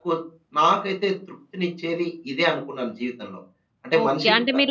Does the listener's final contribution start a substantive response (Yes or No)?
Yes